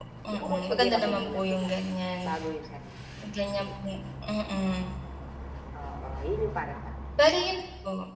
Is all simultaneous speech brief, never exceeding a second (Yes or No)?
No